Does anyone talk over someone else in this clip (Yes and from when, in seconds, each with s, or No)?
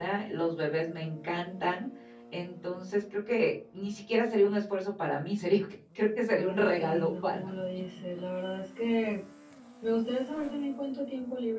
Yes, from 6.3 s